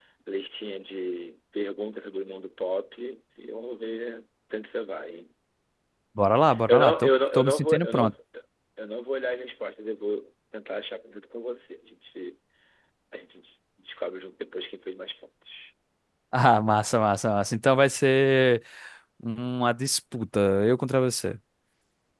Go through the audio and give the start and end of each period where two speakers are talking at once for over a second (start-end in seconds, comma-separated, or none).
6.7-8.1